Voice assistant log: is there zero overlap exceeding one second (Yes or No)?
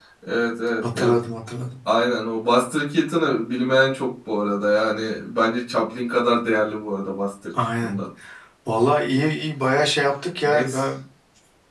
Yes